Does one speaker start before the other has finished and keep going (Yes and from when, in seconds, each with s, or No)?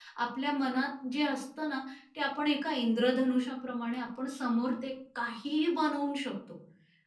No